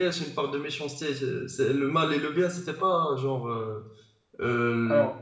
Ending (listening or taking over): listening